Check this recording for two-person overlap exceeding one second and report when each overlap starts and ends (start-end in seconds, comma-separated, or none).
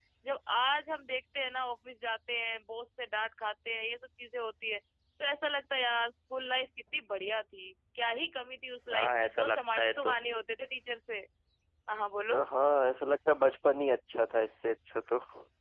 8.9-10.2